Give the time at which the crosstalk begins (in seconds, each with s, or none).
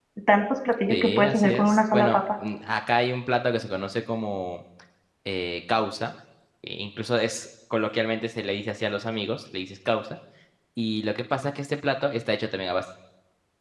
0.9 s